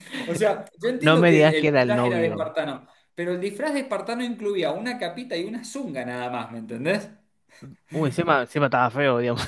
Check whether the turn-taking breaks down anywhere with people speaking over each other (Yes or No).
Yes